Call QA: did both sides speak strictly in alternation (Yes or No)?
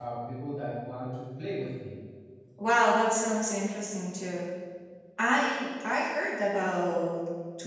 Yes